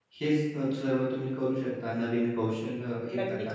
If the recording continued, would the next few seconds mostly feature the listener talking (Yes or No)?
Yes